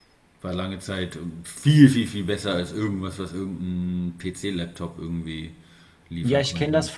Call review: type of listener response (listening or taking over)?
taking over